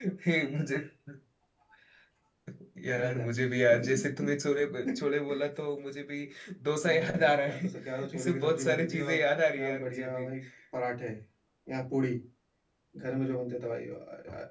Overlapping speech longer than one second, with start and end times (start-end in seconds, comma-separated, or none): 6.8-10.2